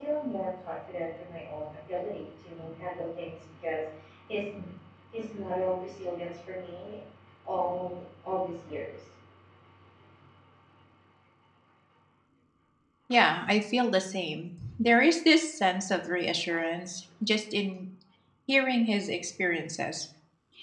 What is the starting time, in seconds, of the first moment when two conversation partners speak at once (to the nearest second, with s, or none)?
none